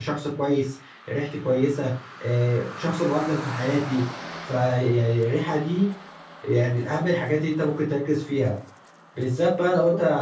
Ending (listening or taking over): listening